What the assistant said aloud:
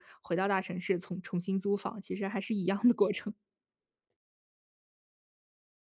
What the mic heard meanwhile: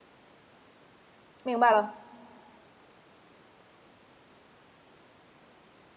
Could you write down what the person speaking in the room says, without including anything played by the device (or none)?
明白了。